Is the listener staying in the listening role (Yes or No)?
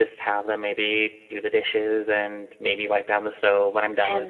No